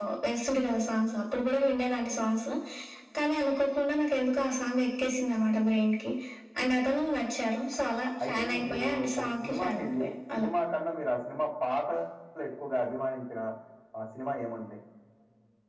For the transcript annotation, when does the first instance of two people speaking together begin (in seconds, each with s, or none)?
8.2 s